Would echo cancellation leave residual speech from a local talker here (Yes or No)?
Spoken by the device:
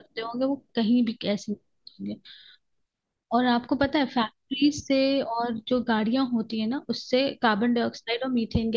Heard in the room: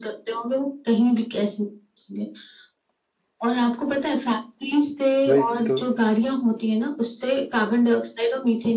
Yes